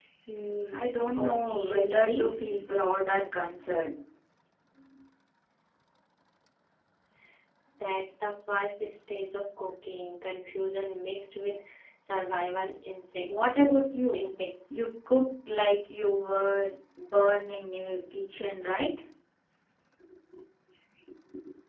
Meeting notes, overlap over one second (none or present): present